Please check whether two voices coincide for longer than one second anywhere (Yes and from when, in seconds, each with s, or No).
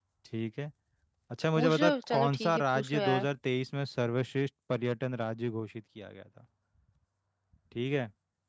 Yes, from 1.6 s